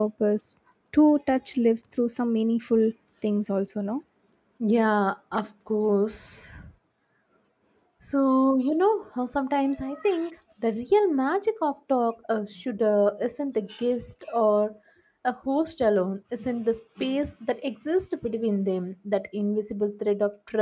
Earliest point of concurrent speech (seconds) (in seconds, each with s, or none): none